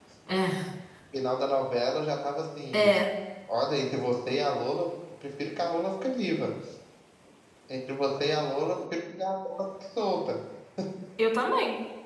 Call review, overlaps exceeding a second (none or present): none